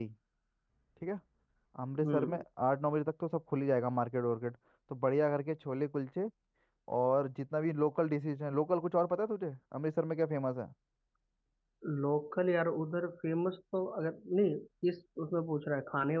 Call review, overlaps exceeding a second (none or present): none